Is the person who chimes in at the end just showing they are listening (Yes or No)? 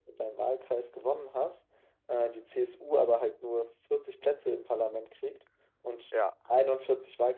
Yes